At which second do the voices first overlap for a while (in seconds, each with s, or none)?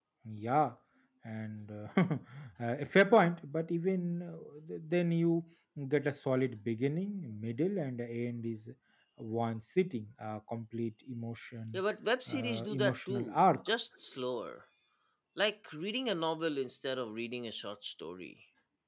12.3 s